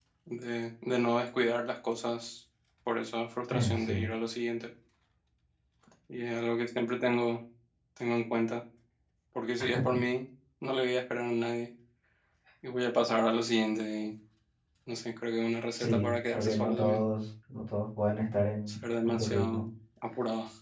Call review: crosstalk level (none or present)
present